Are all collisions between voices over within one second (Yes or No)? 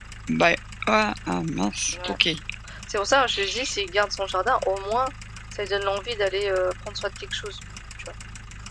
Yes